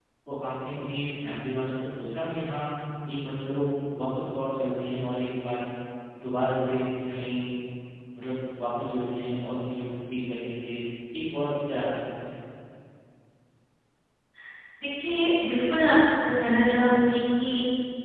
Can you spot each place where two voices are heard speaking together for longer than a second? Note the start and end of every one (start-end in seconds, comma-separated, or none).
none